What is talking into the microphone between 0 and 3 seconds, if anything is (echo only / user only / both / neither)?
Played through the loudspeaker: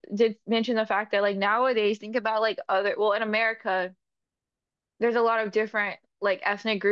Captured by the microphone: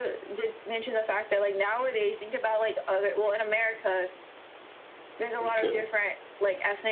echo only